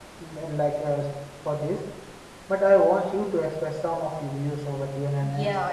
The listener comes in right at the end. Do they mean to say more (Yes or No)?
Yes